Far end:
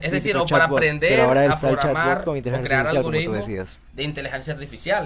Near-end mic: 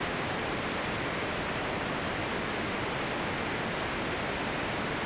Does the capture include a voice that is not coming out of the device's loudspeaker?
No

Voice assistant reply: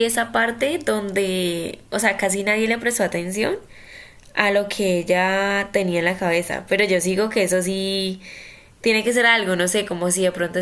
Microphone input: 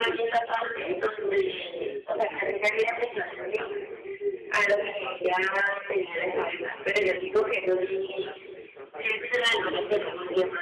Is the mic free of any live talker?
No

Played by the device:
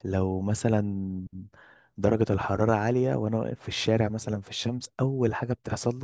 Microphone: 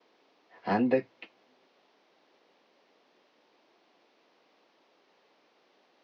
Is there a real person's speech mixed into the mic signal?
Yes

